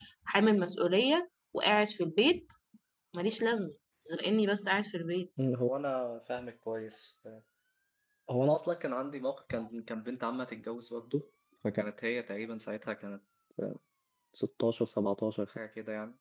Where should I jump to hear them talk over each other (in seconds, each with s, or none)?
none